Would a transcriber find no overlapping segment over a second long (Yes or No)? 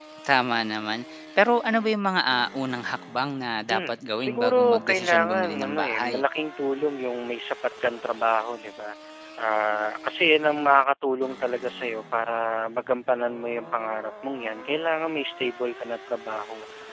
No